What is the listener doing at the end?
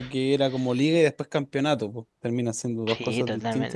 taking over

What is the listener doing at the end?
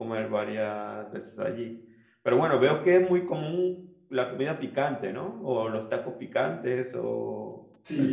taking over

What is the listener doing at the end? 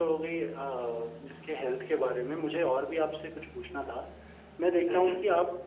listening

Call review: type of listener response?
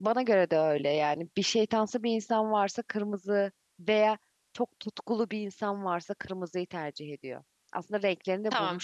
taking over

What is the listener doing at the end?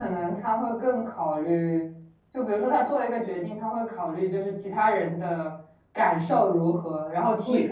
listening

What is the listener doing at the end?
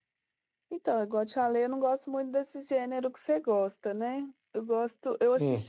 listening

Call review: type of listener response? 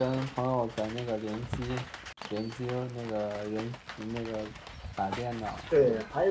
taking over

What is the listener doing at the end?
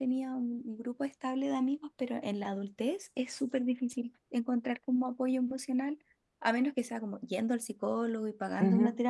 taking over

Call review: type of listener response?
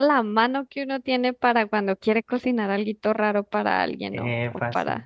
listening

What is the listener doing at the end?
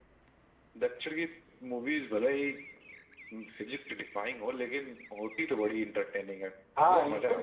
taking over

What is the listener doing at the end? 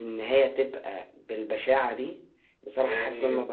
listening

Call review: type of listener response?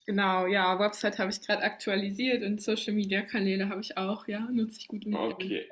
taking over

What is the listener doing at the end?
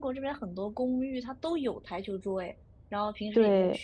listening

